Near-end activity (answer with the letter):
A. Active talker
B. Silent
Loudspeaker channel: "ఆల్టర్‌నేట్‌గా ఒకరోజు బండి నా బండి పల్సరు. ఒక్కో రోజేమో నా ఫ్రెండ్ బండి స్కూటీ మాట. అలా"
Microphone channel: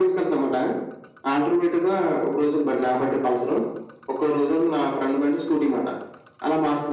B